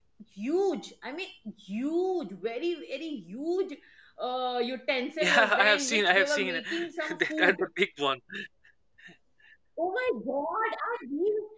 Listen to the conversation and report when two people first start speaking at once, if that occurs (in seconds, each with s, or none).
5.2 s